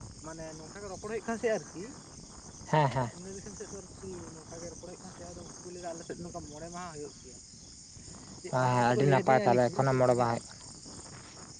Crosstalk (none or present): present